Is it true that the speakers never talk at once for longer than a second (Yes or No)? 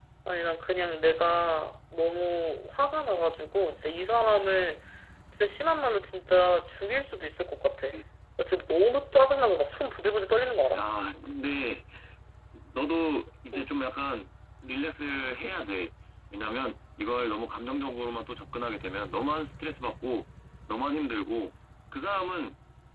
Yes